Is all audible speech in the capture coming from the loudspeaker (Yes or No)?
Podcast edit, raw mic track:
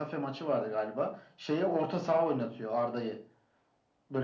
Yes